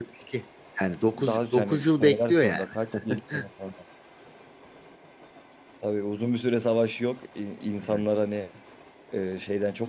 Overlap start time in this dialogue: 1 s

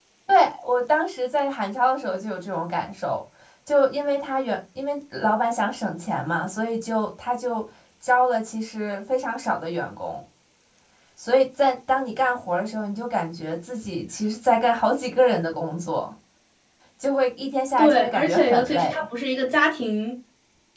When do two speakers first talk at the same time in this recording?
18 s

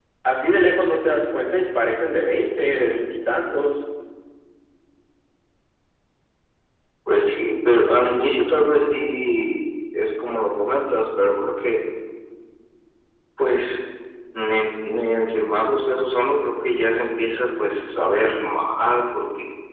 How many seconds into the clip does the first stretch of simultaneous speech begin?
none

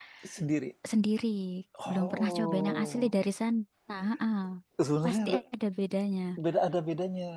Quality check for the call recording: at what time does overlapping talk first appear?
2 s

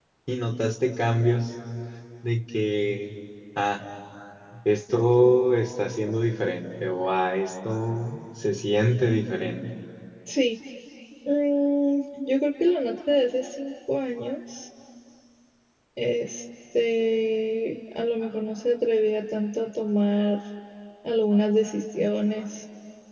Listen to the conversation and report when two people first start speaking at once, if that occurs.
none

